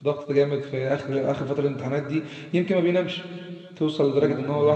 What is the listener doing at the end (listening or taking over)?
listening